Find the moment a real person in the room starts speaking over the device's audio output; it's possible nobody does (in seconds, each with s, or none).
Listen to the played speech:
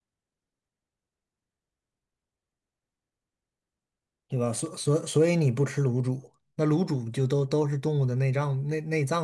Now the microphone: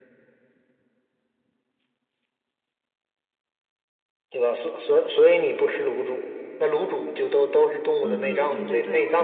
8.0 s